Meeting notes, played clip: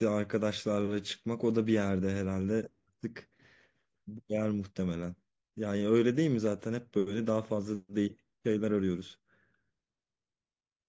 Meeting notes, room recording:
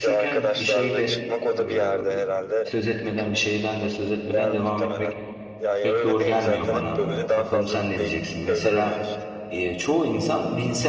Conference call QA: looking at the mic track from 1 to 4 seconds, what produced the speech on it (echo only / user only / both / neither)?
both